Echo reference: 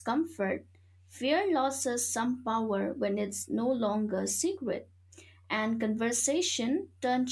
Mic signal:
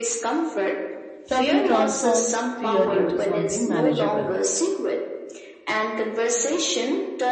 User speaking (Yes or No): Yes